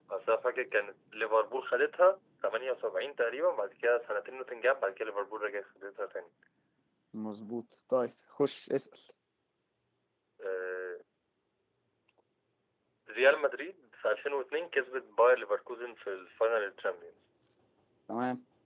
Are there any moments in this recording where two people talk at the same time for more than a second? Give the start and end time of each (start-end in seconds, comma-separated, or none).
none